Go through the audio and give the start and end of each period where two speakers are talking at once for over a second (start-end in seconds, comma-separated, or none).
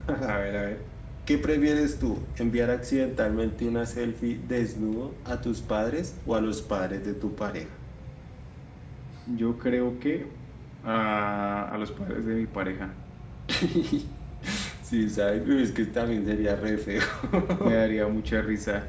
none